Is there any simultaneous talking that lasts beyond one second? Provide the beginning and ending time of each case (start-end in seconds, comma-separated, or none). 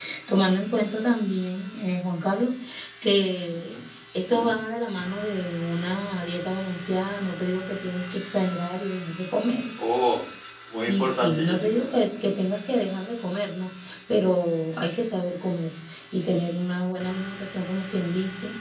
10.7-11.9